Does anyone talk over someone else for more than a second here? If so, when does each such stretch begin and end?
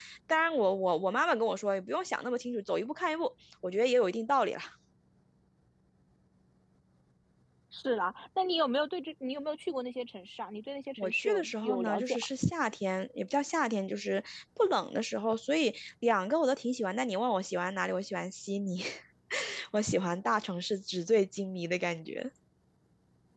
11.0-12.3

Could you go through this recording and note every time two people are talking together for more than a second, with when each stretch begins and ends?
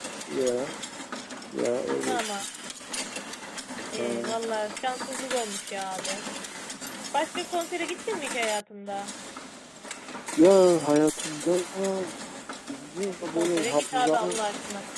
13.1-14.4

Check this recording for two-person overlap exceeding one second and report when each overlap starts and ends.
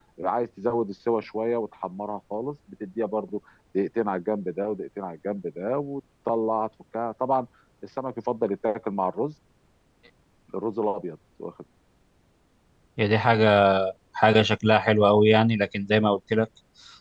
none

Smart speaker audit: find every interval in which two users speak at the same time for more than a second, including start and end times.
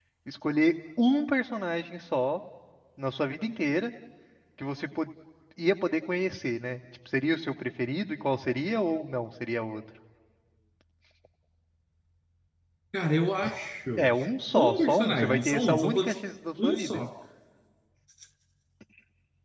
14.5-16.1

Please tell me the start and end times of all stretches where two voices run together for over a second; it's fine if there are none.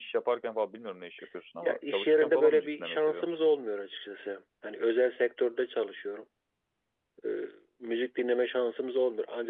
1.6-3.4

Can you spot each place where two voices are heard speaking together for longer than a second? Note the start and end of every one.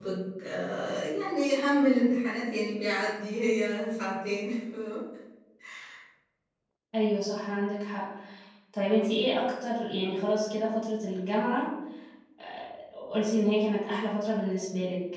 none

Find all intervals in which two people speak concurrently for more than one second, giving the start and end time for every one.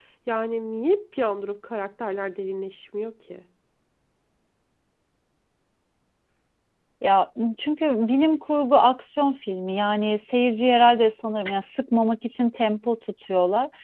none

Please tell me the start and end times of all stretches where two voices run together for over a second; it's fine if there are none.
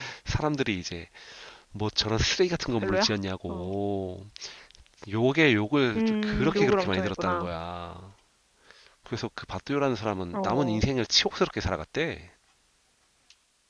6.0-7.5

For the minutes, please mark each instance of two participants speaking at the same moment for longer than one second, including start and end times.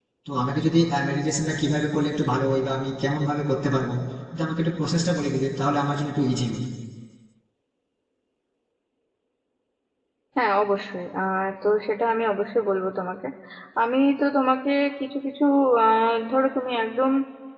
none

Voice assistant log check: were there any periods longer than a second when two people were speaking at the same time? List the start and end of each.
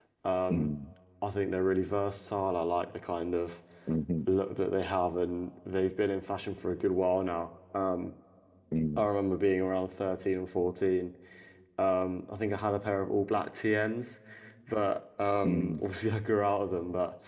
none

